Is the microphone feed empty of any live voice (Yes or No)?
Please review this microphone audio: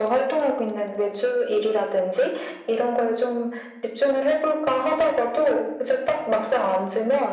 Yes